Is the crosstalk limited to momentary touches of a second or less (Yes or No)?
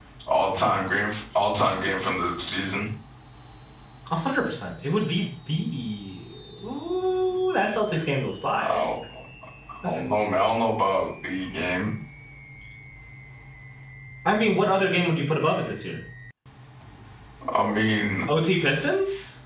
Yes